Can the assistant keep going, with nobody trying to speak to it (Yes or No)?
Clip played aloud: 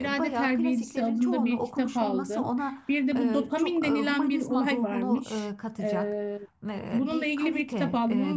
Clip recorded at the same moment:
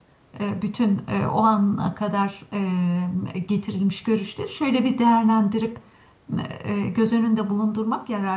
No